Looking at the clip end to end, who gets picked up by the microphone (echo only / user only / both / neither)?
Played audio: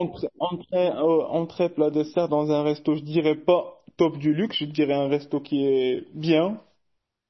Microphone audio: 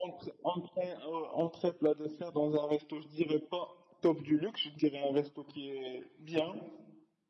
echo only